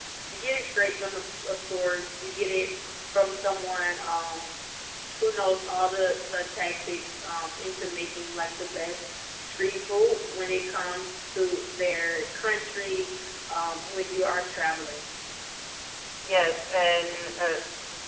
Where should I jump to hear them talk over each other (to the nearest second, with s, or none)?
none